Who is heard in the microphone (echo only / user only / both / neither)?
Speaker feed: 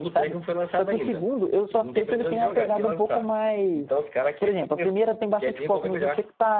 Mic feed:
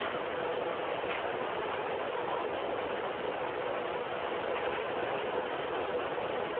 neither